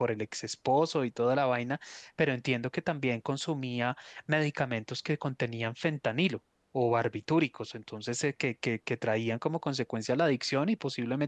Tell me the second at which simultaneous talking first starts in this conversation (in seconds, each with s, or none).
none